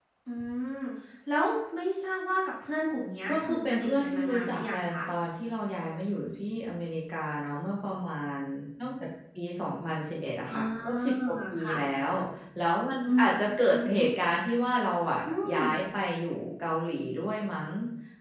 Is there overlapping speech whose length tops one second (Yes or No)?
Yes